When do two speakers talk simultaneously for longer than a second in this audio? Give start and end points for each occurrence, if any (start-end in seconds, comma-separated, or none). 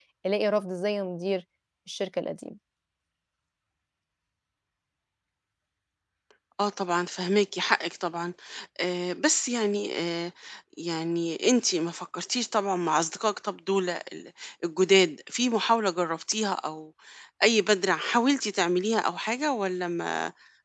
none